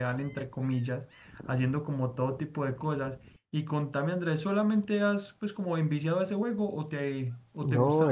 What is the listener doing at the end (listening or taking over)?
taking over